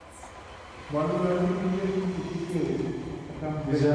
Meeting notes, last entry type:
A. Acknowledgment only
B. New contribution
A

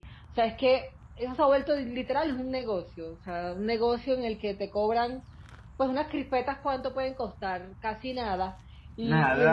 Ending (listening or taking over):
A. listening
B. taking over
A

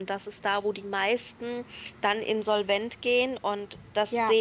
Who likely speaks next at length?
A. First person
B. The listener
B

